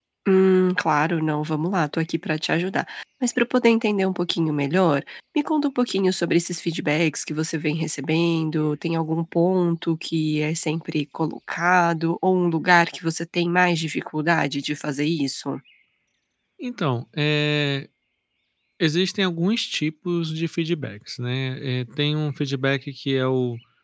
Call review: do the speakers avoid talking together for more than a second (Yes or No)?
Yes